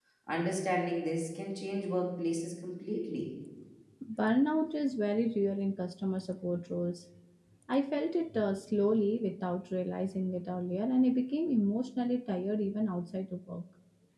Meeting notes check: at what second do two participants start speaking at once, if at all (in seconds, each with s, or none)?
none